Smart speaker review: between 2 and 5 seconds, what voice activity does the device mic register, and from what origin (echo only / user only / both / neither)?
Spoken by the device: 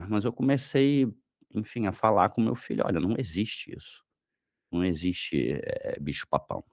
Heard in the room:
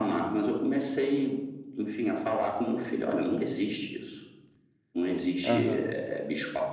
echo only